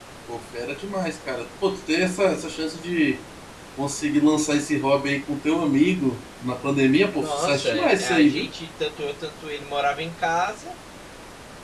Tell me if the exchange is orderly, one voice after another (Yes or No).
No